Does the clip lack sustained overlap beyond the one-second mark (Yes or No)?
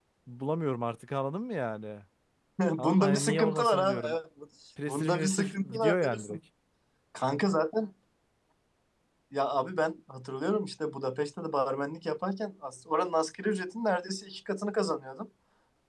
No